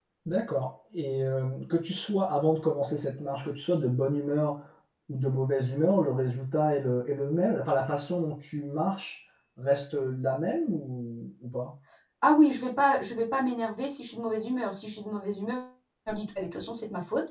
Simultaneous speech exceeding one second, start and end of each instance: none

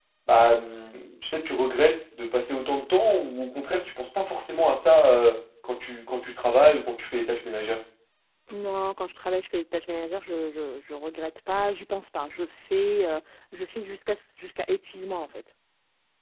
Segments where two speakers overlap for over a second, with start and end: none

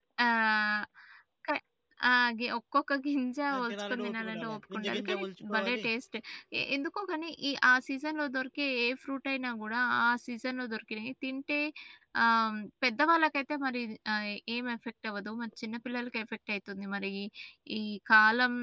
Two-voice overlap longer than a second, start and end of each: 3.5-5.8

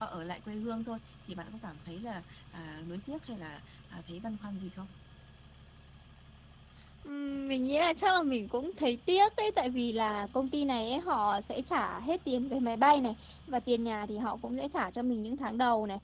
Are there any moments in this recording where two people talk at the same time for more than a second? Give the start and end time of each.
none

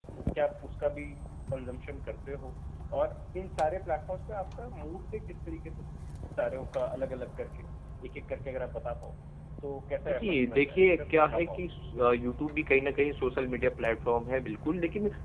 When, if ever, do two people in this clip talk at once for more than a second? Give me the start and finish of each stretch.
10.1-11.6

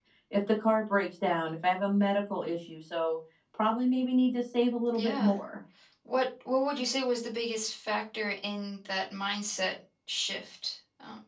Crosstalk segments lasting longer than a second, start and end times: none

